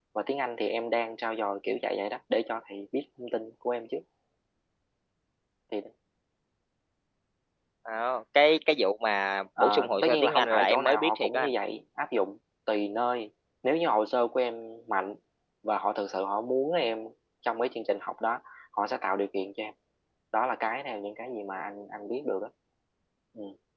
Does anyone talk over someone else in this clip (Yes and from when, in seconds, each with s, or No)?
Yes, from 9.6 s